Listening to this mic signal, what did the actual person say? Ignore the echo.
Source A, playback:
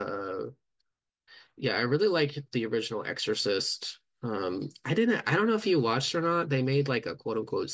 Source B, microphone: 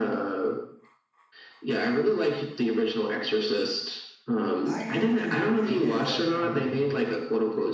I have to admit that um

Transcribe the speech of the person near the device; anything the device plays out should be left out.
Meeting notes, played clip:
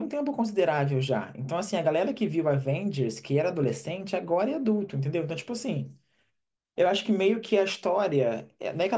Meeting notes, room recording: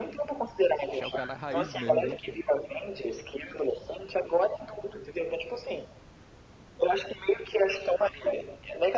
Achar o cara raiz mesmo, viu, pô?

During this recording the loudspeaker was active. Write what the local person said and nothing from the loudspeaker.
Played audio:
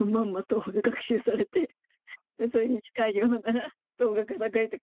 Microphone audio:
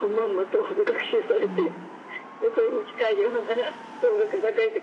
うん、

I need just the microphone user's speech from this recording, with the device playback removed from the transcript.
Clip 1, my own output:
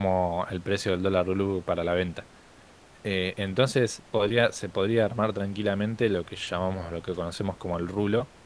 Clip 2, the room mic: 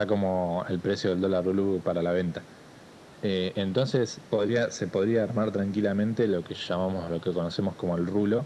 none

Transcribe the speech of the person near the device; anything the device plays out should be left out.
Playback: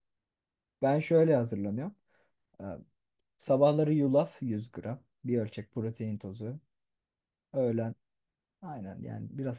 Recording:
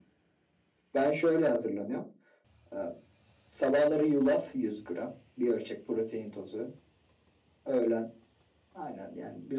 none

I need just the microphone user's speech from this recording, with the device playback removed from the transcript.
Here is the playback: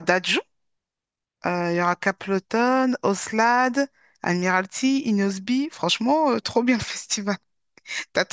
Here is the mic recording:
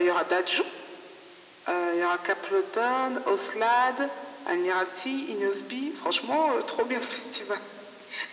none

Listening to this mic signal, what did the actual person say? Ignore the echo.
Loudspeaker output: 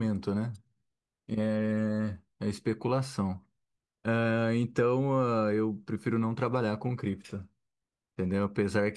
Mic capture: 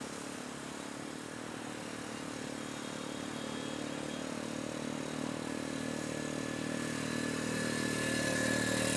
none

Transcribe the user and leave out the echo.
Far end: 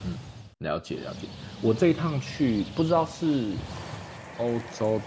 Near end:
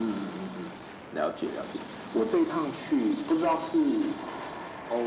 none

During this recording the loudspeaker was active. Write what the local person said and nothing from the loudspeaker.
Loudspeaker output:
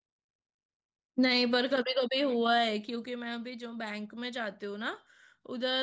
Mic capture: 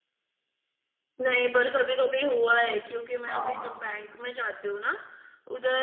हाँ हाँ

